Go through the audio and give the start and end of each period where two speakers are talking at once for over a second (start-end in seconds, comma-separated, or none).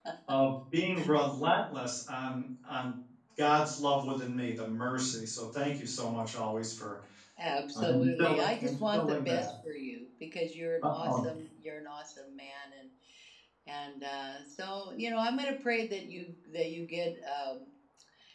7.8-9.5